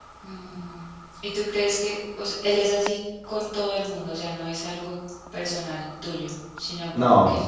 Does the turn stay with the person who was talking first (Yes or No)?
Yes